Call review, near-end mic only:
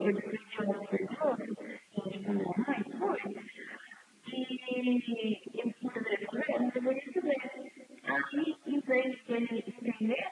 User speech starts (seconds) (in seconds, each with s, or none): none